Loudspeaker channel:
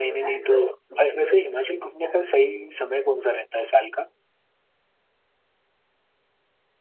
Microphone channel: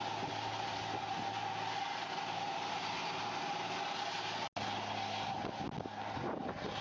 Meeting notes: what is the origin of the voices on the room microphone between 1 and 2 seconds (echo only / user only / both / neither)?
neither